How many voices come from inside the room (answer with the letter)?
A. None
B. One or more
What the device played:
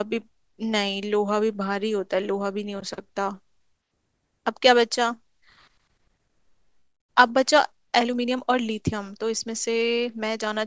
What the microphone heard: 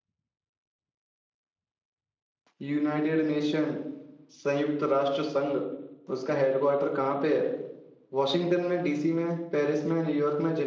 B